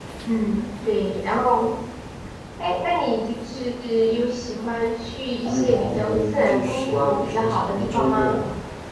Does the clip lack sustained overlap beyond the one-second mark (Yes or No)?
No